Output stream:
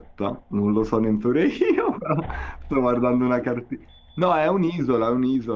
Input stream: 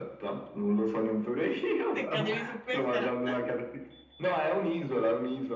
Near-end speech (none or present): present